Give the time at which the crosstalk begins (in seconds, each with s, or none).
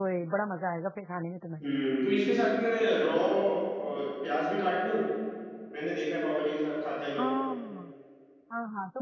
none